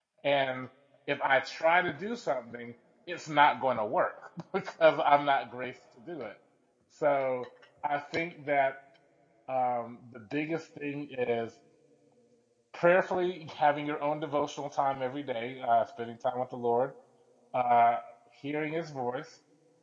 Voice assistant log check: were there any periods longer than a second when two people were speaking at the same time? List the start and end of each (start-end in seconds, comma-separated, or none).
none